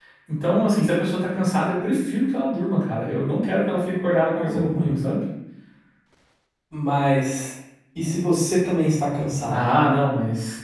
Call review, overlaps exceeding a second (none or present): none